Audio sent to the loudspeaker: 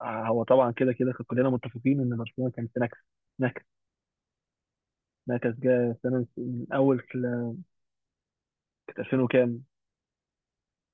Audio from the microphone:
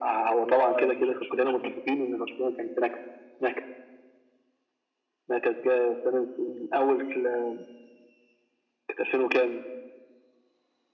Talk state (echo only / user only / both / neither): both